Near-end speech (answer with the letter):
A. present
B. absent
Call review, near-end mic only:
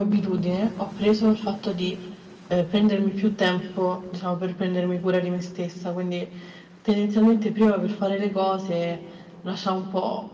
B